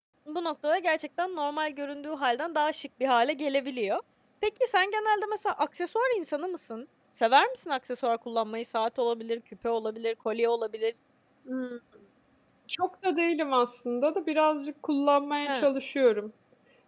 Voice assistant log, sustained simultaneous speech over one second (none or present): none